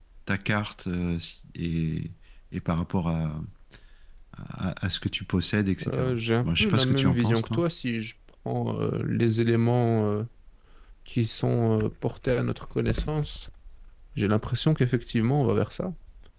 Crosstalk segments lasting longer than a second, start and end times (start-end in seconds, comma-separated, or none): 5.9-7.6